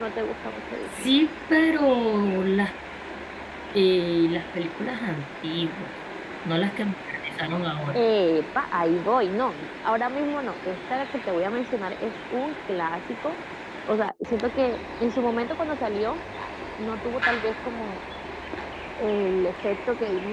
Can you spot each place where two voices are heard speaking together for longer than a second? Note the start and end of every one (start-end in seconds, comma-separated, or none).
none